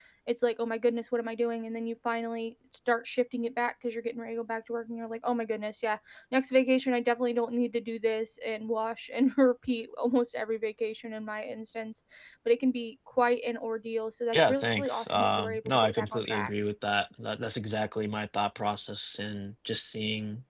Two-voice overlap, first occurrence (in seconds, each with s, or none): 14.3 s